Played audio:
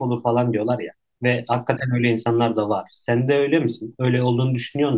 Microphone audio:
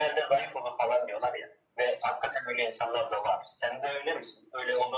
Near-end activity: none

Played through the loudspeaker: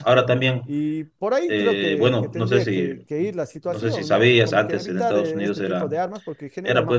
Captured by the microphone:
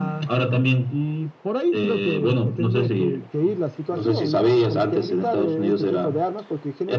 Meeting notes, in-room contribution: none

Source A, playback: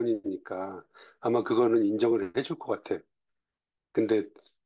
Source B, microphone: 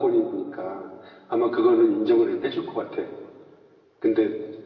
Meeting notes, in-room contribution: none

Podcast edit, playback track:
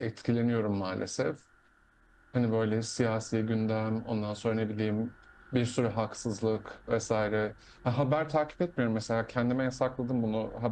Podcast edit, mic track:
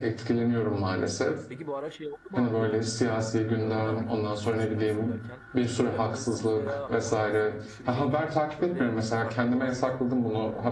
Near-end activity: present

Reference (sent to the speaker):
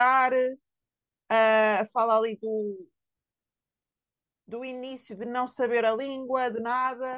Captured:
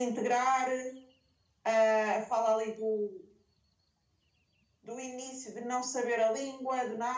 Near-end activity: none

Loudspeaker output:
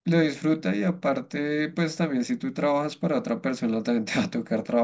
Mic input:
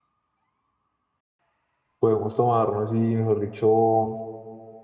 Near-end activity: present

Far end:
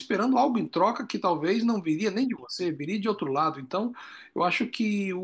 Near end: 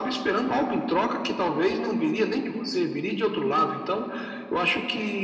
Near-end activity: none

